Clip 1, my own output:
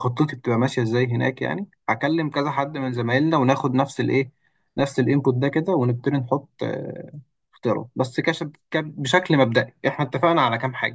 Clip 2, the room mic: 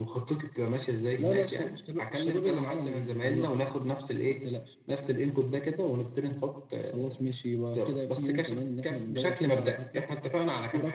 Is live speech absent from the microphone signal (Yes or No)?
No